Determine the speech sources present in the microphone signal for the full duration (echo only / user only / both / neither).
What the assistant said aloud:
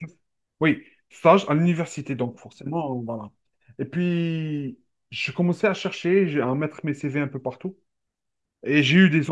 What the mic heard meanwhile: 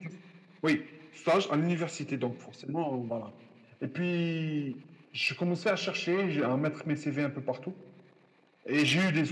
echo only